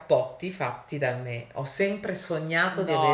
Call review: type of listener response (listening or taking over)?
taking over